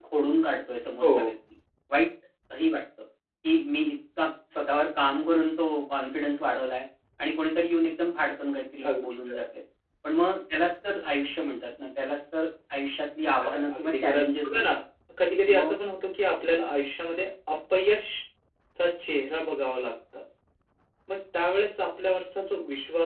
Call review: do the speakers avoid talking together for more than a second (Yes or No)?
No